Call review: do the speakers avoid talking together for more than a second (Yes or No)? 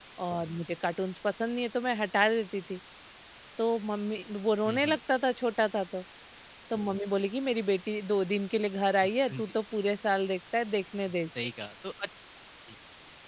Yes